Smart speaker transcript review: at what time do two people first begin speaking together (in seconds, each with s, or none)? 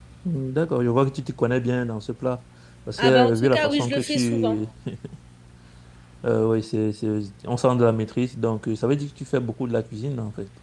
3.0 s